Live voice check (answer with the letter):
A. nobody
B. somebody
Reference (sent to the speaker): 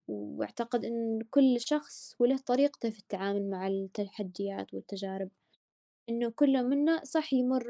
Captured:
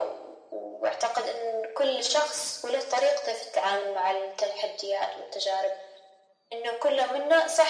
A